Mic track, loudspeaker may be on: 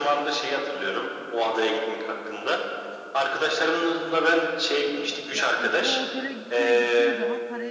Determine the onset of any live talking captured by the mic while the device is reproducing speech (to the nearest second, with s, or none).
5 s